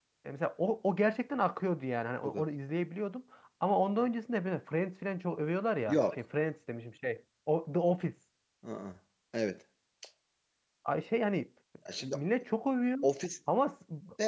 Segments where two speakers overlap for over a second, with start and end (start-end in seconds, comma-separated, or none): none